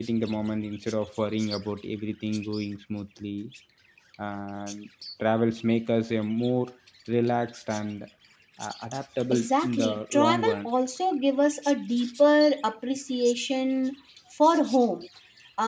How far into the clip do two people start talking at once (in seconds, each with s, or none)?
9.3 s